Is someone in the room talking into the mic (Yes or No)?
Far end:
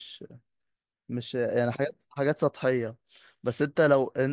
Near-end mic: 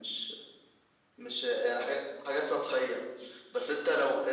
No